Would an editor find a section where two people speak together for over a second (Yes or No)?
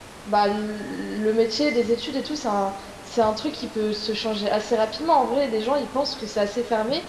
No